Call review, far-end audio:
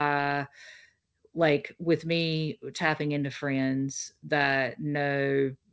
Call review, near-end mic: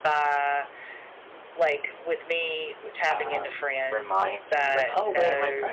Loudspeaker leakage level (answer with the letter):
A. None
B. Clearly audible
B